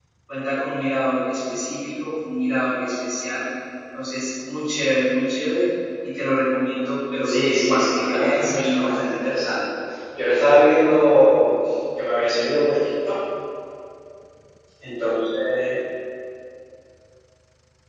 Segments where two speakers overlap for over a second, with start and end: 7.2-9.0

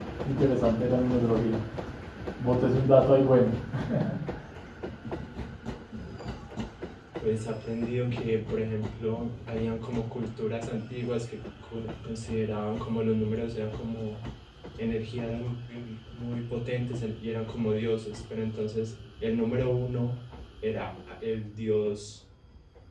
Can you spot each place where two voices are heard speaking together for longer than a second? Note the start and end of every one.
none

